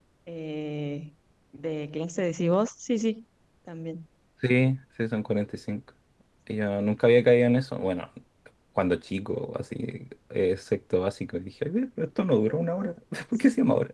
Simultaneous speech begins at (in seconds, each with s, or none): none